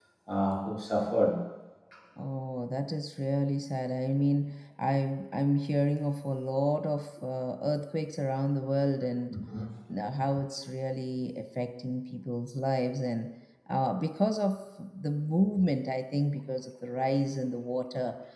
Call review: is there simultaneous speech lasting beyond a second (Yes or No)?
No